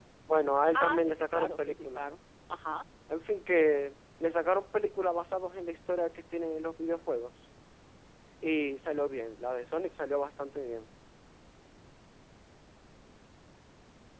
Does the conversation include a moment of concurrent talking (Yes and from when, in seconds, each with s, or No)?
Yes, from 0.8 s